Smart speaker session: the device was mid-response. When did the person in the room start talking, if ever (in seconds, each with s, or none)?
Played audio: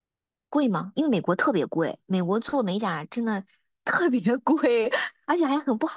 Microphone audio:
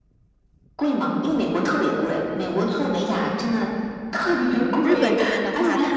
4.8 s